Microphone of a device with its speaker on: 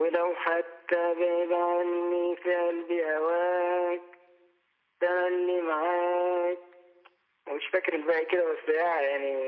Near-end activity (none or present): none